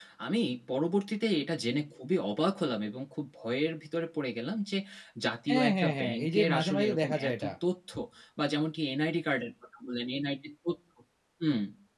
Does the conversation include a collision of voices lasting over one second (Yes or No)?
Yes